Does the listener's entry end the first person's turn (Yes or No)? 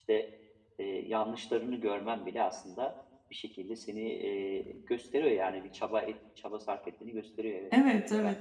Yes